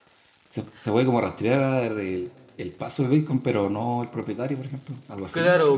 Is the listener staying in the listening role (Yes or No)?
No